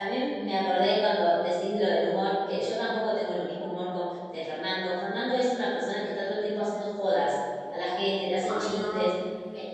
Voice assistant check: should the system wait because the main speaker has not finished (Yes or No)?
Yes